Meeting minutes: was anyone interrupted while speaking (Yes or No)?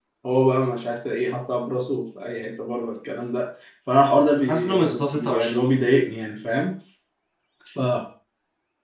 Yes